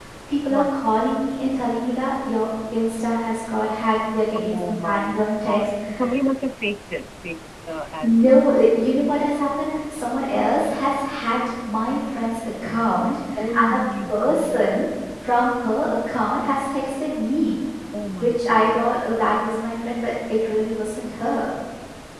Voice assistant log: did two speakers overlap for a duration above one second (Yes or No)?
Yes